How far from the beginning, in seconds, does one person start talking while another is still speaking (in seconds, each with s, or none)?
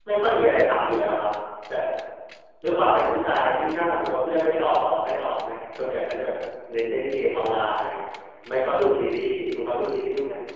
none